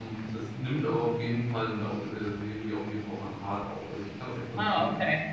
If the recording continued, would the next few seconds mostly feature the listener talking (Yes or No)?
Yes